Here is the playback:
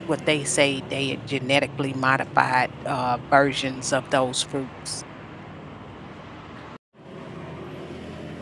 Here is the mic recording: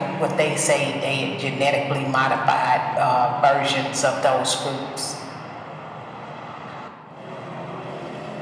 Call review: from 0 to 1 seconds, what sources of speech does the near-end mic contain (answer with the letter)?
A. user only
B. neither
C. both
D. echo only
D